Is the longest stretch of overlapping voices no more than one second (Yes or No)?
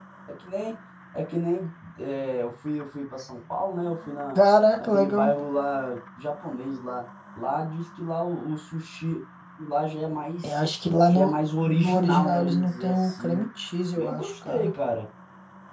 No